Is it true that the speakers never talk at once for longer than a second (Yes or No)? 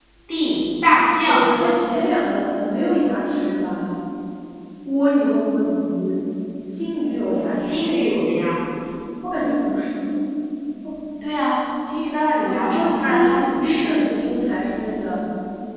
No